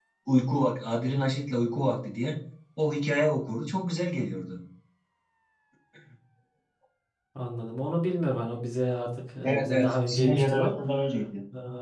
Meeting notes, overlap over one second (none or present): present